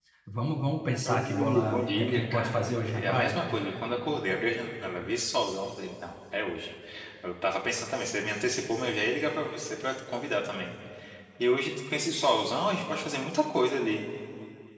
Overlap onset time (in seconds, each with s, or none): 1.1 s